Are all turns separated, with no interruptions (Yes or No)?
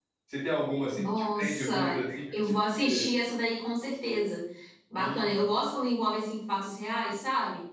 No